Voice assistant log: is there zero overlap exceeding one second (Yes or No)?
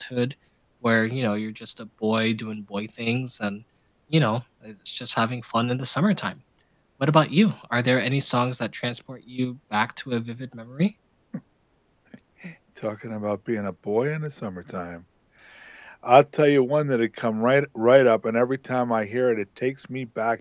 Yes